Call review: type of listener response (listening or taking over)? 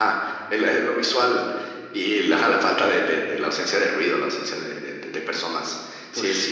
listening